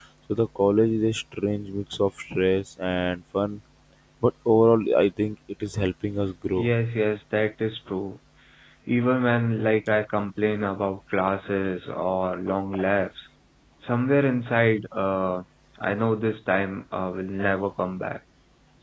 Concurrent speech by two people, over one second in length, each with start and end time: none

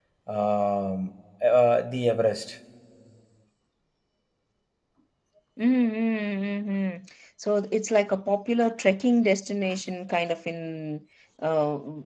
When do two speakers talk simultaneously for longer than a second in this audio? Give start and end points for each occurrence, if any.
none

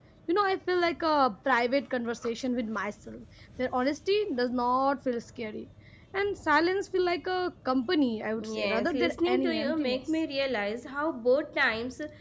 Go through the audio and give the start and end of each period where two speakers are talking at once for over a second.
8.4-10.0

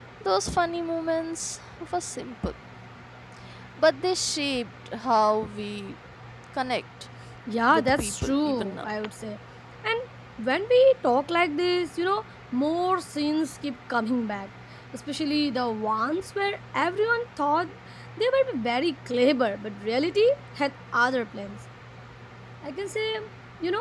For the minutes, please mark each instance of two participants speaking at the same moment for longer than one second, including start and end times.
7.7-8.9

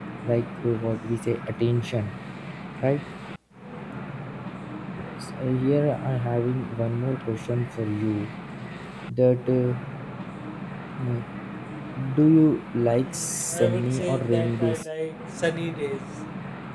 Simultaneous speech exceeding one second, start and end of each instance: 13.0-14.9

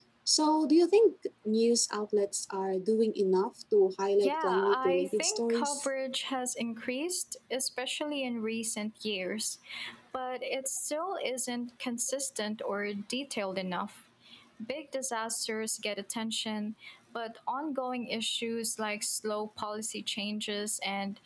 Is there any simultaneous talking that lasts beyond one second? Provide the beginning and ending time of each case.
4.2-5.9

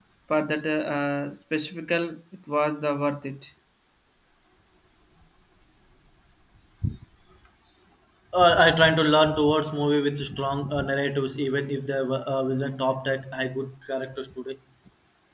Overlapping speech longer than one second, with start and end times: none

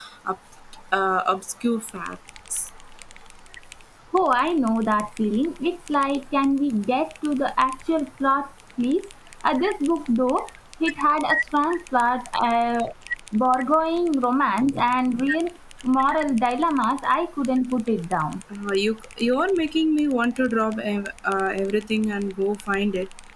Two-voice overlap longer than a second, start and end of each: none

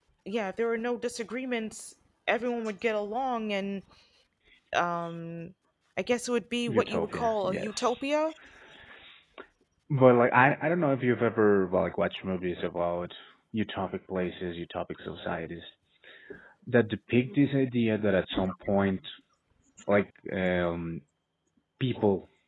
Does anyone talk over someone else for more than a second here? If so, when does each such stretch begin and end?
6.7-8.1

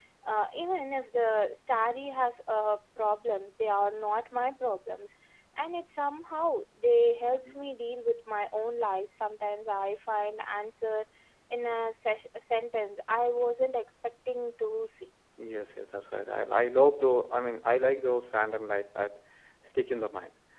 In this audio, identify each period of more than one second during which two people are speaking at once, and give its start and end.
none

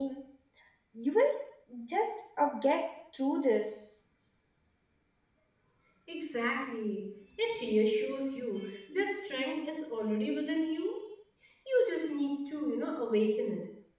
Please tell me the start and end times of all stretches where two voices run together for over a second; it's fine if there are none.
none

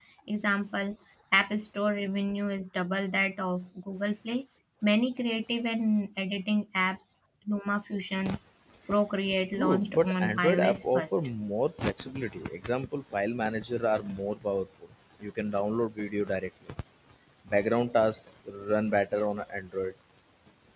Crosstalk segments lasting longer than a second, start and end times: 9.5-11.1

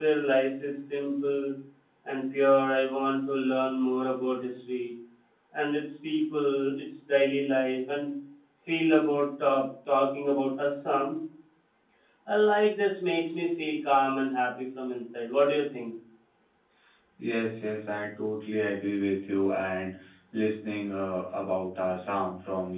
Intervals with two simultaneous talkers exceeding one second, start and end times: none

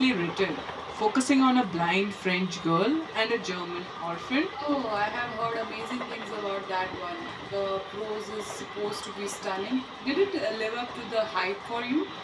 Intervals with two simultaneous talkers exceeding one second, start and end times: none

